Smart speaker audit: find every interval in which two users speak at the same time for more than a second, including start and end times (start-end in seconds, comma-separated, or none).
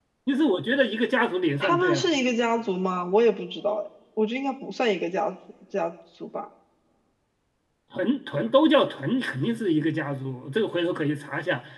none